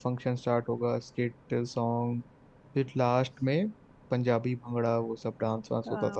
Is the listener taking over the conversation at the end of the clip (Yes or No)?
Yes